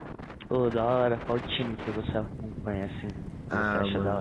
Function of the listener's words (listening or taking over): taking over